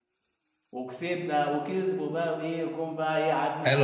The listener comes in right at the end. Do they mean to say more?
Yes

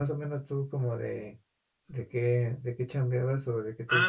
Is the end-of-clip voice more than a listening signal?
Yes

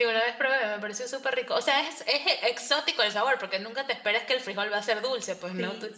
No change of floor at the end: No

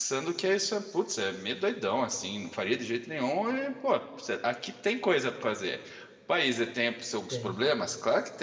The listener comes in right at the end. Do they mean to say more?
No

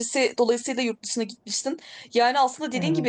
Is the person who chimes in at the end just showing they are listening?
Yes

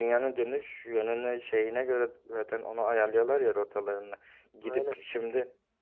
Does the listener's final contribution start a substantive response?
No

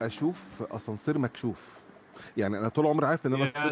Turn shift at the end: No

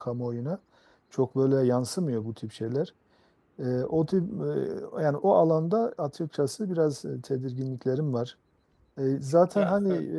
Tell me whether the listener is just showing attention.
Yes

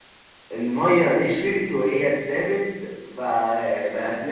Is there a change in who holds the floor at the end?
No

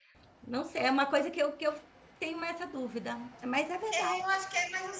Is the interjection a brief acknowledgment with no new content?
No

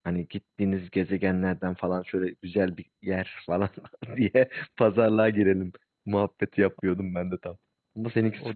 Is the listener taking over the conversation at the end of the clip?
Yes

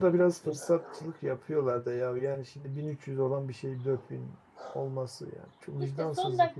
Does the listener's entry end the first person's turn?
Yes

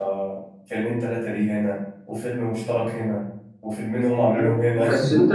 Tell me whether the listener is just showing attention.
No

